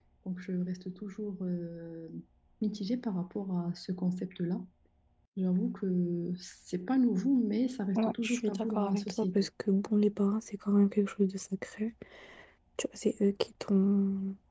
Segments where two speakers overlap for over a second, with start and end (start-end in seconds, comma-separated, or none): 8.0-9.5